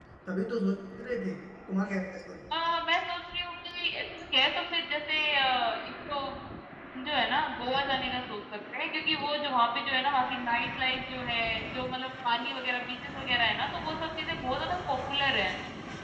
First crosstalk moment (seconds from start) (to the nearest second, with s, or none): none